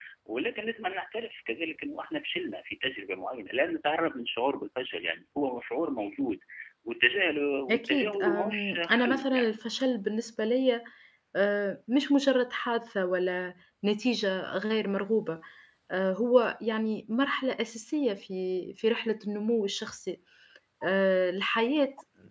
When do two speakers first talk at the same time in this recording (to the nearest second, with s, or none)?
8 s